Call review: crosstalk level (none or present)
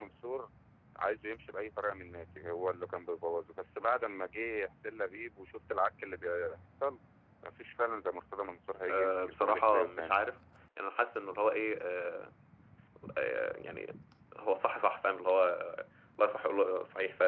present